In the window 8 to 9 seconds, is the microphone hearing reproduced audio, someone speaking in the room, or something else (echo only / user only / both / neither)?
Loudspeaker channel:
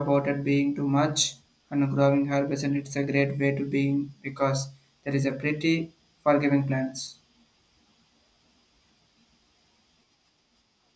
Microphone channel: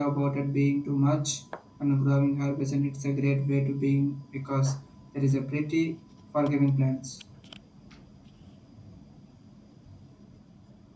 neither